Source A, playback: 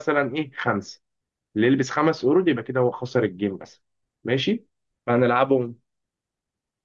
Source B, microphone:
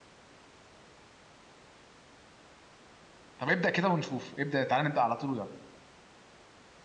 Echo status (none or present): none